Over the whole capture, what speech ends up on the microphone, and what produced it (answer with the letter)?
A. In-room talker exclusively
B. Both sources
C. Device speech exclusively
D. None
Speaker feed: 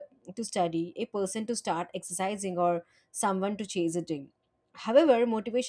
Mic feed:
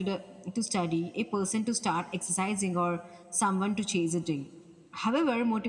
C